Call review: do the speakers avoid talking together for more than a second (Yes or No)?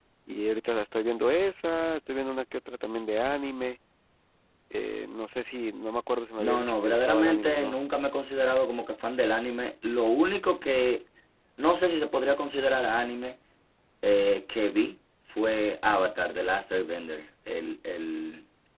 No